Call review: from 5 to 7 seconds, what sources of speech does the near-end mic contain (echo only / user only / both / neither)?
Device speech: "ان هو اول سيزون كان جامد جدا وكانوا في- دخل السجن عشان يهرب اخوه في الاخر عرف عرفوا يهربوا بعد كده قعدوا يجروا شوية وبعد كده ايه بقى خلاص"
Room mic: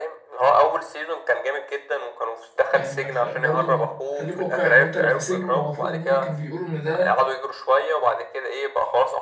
both